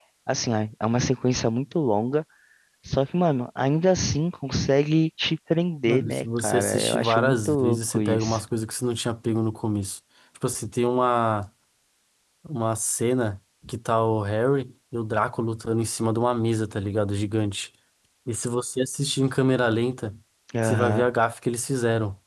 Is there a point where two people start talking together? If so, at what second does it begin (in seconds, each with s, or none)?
5.8 s